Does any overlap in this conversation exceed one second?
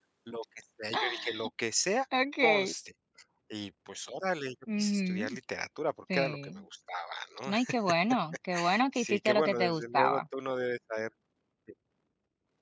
Yes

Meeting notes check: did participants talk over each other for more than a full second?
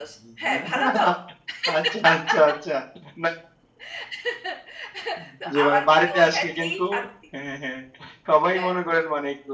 Yes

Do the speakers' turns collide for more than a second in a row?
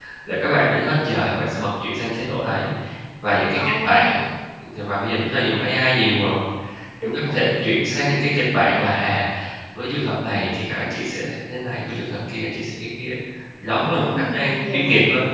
Yes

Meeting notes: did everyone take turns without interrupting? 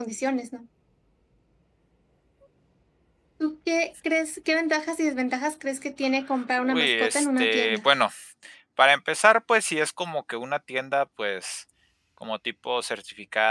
No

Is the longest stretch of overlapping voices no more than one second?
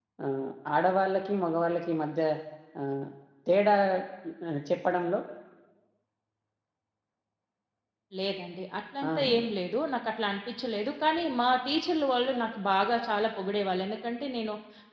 Yes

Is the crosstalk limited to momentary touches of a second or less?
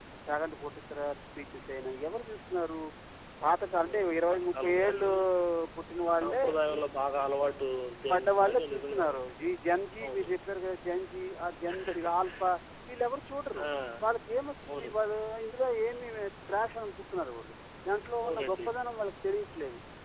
No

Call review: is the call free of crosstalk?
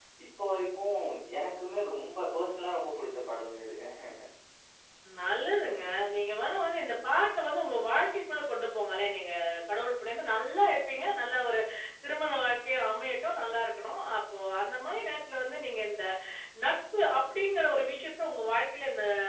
Yes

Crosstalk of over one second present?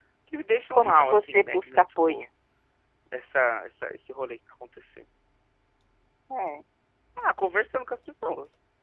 Yes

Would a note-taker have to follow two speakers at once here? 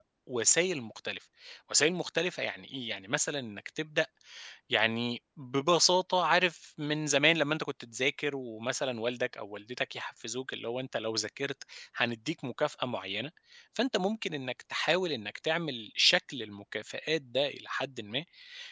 No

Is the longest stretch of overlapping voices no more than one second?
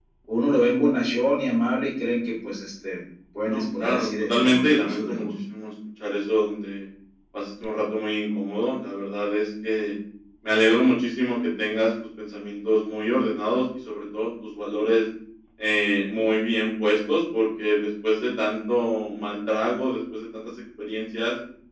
No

